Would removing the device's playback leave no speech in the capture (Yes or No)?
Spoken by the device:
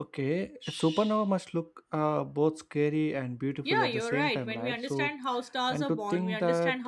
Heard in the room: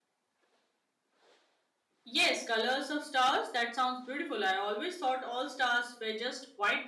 No